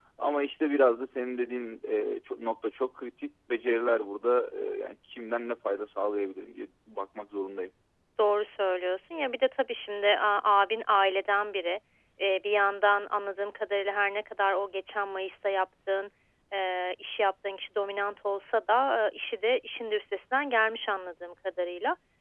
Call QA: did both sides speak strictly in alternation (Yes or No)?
Yes